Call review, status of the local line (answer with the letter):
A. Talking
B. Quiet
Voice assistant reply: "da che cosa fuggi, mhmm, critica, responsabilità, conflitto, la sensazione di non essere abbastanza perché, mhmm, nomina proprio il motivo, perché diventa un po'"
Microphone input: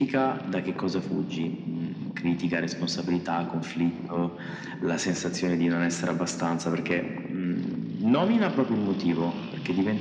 B